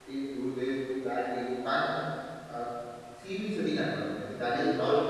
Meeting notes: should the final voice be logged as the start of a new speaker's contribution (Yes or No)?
Yes